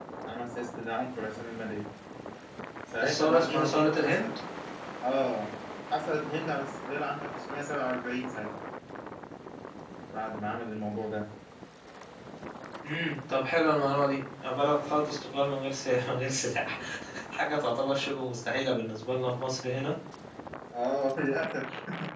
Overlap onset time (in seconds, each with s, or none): 3.0 s